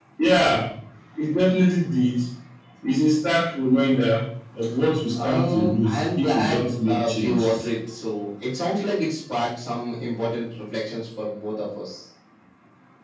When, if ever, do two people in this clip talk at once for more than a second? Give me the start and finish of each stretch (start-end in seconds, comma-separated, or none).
5.1-7.6